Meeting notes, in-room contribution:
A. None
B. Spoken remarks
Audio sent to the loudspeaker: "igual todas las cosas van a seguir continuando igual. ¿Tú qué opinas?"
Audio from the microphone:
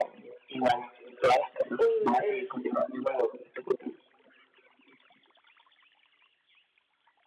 B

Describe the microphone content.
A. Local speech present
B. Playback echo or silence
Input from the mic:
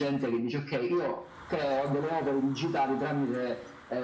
B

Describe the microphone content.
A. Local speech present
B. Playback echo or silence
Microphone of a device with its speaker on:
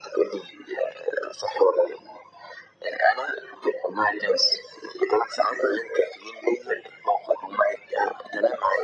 B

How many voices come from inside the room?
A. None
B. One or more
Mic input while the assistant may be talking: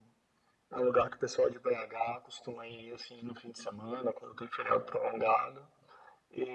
A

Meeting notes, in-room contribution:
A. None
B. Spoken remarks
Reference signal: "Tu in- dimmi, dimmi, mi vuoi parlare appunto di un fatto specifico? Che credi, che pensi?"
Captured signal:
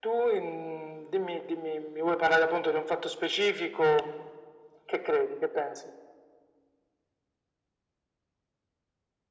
A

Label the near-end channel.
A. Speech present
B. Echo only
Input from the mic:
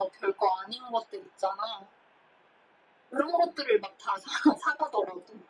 B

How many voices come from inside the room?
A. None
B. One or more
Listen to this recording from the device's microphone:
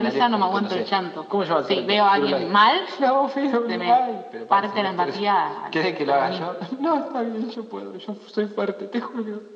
A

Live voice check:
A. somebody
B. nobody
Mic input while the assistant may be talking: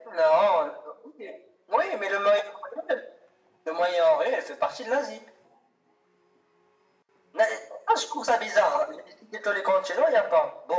B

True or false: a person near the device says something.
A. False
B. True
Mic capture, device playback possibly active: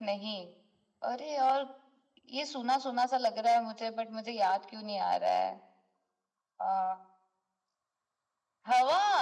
A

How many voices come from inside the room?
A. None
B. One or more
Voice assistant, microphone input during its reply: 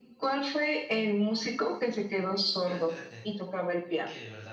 B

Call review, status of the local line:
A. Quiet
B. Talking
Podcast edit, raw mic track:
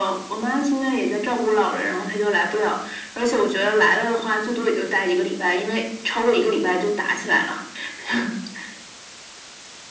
A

